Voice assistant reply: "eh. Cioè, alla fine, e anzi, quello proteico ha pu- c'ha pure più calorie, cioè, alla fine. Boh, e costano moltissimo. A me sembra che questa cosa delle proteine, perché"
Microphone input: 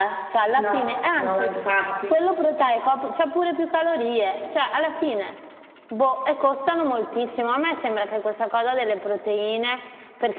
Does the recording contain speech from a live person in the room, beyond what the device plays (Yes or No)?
Yes